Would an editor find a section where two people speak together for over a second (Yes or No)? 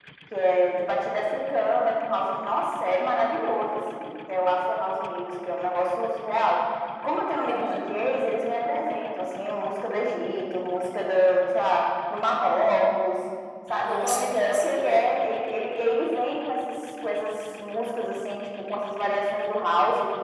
Yes